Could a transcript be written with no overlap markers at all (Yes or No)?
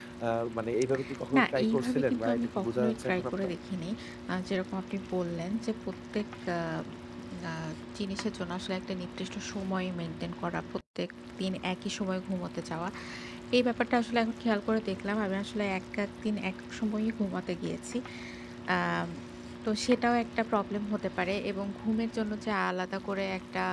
No